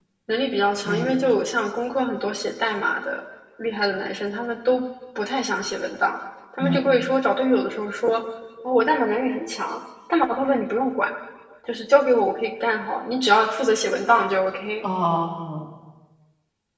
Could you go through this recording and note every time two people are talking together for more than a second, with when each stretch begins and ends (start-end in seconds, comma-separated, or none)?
none